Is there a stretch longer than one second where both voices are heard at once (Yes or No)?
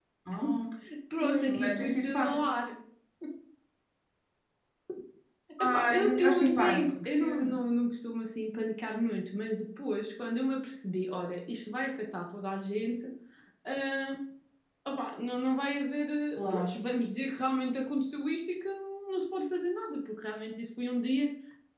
Yes